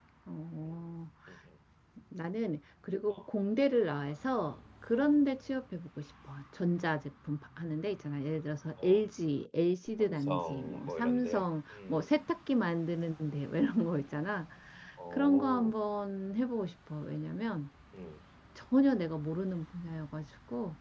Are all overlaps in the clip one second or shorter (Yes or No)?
No